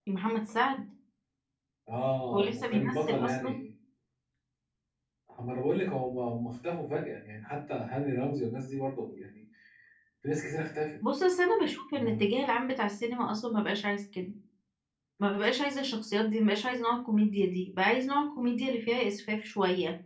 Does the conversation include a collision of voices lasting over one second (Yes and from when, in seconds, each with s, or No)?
Yes, from 2.3 s